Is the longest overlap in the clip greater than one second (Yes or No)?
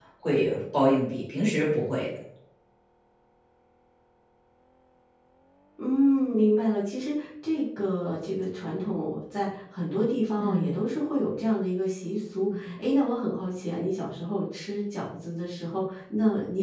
No